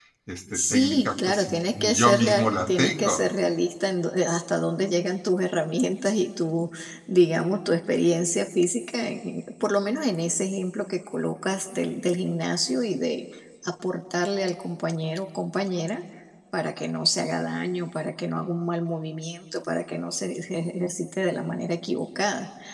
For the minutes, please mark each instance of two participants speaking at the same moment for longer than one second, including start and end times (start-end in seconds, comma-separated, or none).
0.5-3.2